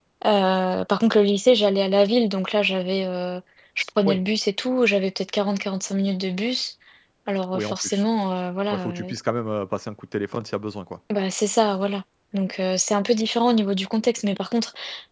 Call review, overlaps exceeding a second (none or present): none